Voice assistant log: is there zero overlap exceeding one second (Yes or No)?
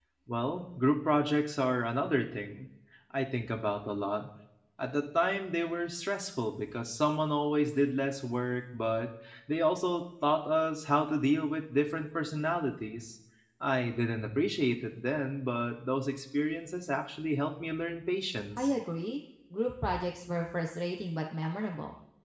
Yes